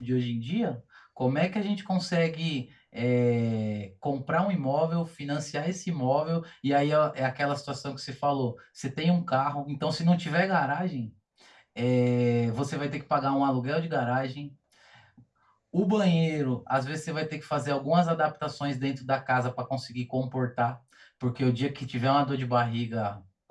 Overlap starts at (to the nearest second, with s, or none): none